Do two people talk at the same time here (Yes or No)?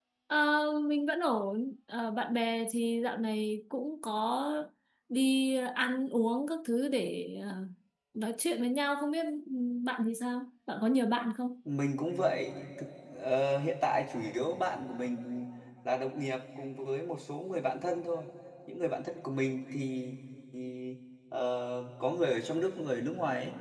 No